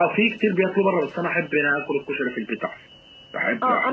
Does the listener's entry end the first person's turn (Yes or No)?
Yes